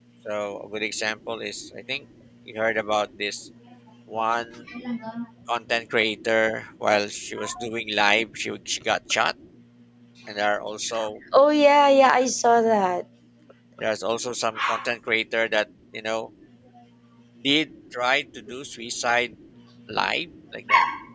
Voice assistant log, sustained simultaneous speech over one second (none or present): none